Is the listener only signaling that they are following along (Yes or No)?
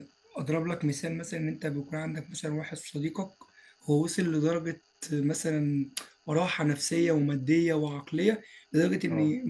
Yes